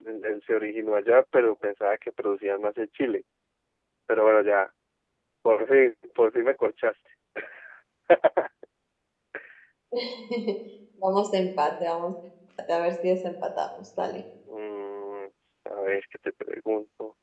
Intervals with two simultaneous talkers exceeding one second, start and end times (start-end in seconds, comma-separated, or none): none